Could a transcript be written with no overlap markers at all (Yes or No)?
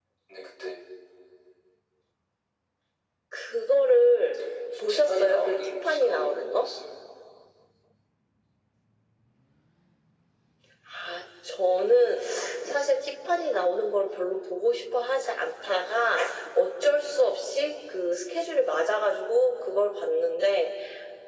No